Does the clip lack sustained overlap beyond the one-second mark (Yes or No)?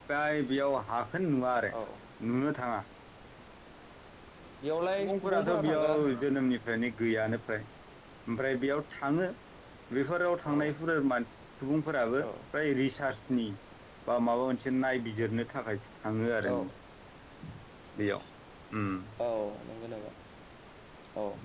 No